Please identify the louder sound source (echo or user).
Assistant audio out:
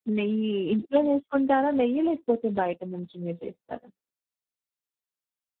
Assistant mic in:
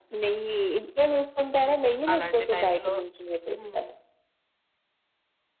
echo